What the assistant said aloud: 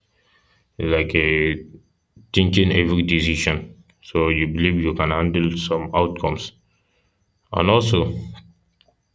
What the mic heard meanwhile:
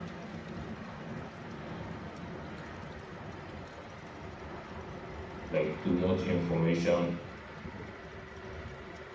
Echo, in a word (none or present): none